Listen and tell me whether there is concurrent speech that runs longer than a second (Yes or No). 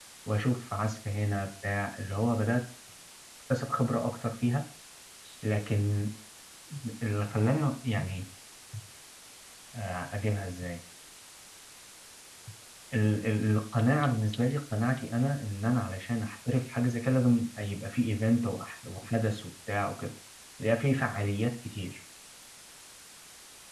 No